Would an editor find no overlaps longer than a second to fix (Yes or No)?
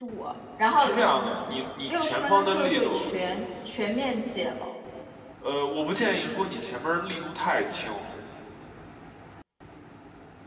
No